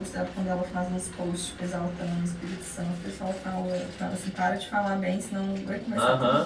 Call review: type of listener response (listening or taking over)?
taking over